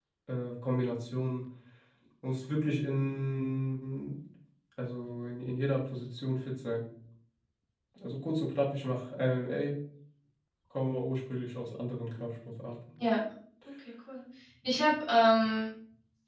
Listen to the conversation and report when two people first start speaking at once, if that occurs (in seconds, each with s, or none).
none